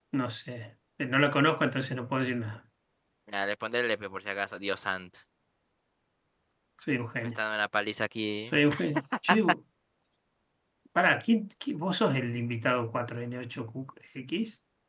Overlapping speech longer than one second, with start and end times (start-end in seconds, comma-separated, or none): none